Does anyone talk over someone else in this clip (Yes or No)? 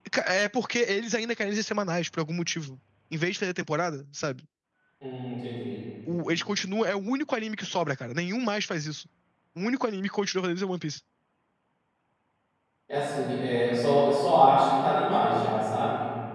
No